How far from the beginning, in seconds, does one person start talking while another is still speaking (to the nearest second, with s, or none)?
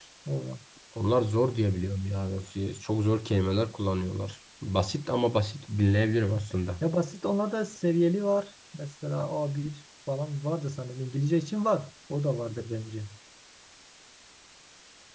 none